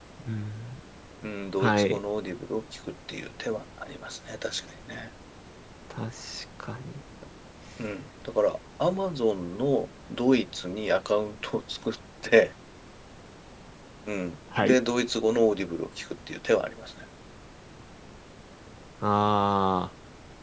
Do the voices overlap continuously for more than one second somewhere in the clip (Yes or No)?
No